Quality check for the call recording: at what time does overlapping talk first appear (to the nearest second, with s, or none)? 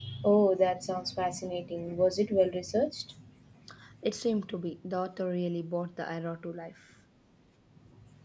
none